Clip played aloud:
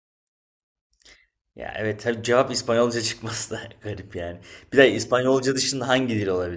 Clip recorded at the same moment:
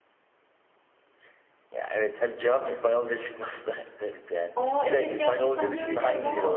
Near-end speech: present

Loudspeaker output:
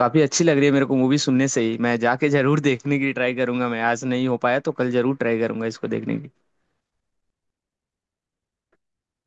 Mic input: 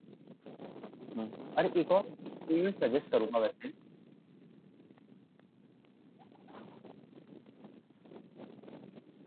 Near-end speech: present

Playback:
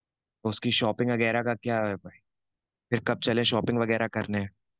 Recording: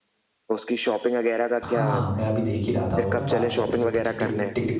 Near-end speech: present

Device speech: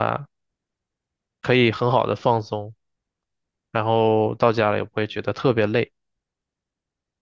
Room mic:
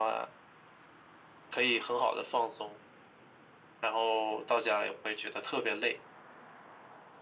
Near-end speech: none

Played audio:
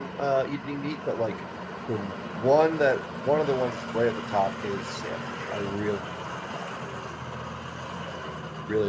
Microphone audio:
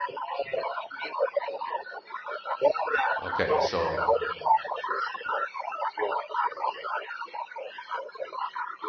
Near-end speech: present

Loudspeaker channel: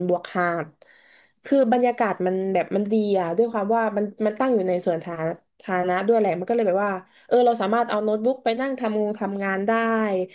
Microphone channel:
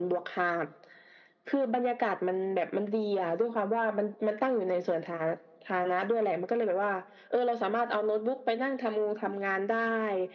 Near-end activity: none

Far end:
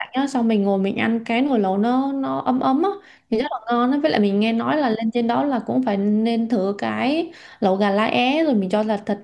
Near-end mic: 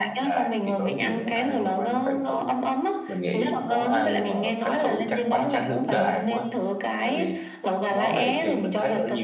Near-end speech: present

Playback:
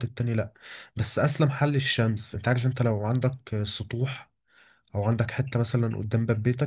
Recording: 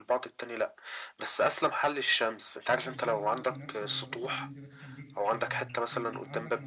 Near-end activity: present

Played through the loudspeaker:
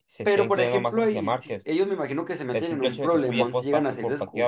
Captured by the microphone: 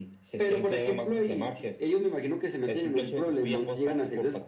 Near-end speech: none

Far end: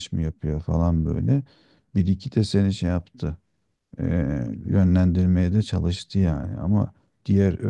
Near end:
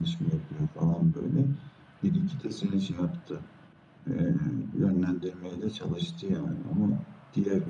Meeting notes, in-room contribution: none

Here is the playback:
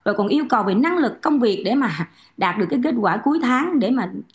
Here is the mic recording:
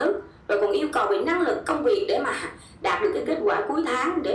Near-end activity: none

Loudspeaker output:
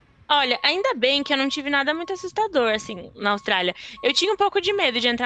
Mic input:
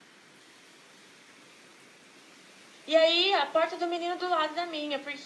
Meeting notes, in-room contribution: present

